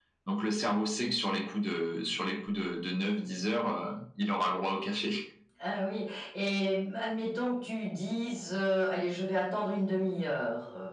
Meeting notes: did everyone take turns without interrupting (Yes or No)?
Yes